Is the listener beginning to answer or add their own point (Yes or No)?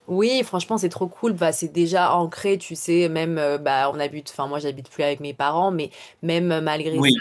No